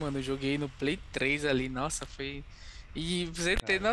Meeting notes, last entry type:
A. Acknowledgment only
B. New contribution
A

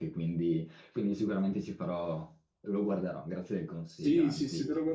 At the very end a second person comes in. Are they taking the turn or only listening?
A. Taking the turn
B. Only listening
A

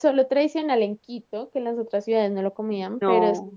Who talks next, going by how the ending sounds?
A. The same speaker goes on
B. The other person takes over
A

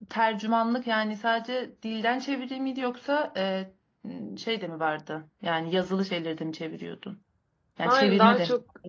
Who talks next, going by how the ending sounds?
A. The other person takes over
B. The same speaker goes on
A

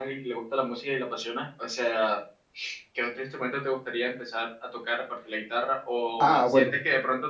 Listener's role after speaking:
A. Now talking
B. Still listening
B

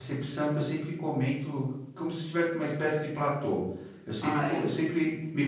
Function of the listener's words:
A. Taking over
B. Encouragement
B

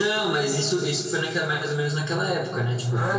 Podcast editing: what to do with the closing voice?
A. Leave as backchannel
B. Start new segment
B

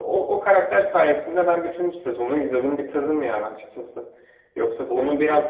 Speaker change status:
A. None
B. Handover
A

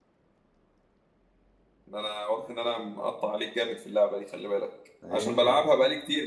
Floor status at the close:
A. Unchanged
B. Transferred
A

